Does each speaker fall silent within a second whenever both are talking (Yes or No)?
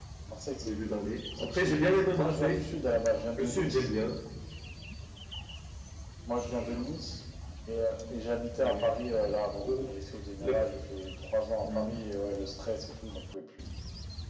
No